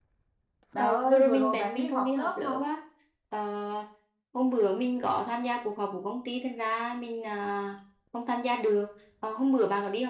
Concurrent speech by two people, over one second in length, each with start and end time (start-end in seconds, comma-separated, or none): 0.8-2.7